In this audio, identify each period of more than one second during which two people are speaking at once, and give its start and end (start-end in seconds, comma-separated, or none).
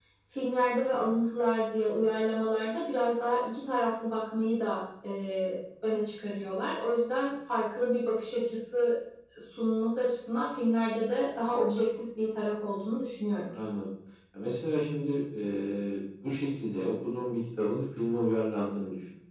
none